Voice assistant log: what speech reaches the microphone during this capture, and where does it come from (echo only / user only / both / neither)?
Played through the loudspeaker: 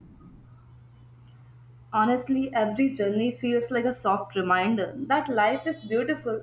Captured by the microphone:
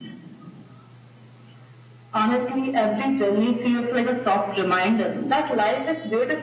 echo only